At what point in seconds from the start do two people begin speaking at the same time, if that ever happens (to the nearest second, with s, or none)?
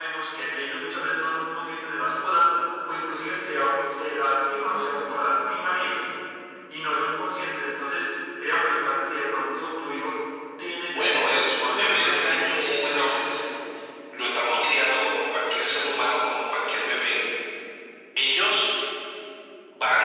11 s